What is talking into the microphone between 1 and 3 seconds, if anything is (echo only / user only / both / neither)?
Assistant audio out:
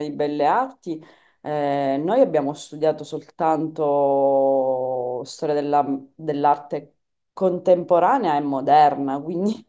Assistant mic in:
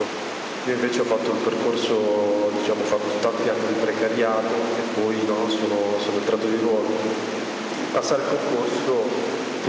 user only